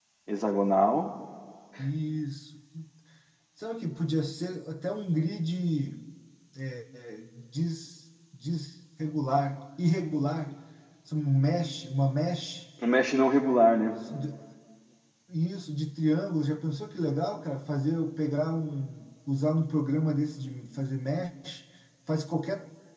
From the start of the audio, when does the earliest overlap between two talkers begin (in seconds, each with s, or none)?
none